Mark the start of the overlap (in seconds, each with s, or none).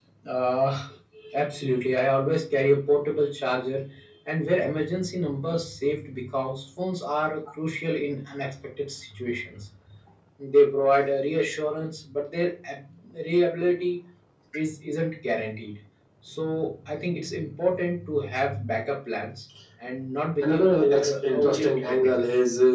20.4 s